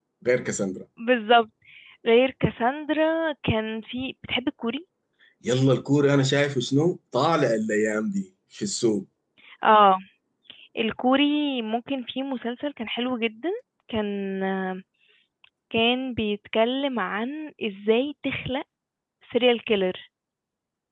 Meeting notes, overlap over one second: none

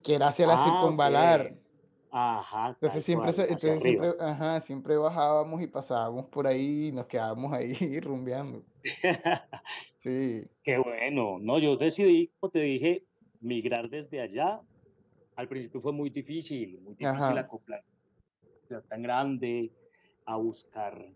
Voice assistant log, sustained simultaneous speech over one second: present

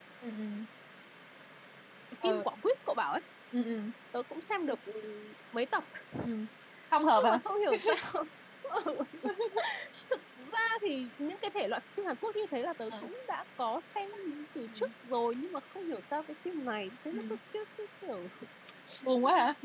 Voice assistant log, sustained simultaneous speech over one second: none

